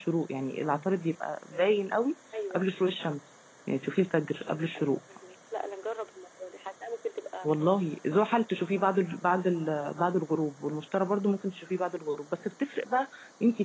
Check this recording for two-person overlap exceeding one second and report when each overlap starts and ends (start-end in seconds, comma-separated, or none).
none